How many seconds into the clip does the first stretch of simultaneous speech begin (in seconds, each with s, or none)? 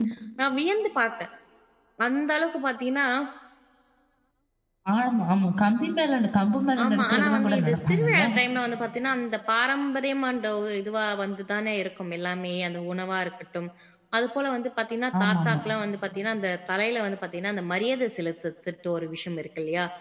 6.8 s